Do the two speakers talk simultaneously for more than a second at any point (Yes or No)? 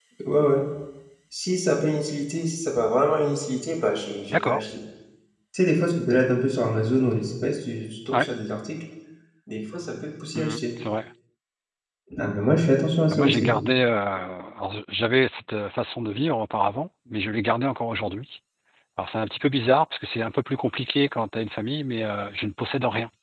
No